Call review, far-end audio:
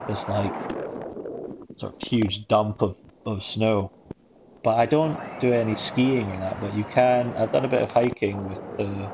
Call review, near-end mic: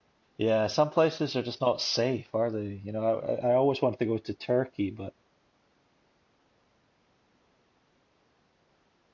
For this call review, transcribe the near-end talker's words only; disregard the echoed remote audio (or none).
Yeah, some places are just not safe, are they? You know, I, I I always wanted to go to Turkey, but